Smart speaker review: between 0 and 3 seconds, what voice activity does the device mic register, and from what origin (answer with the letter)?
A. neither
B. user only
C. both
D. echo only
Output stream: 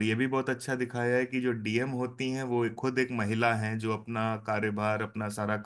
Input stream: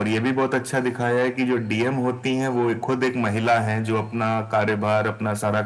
D